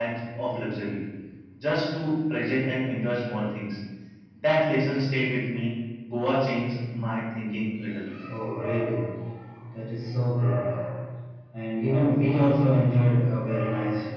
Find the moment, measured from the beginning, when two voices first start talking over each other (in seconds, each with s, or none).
none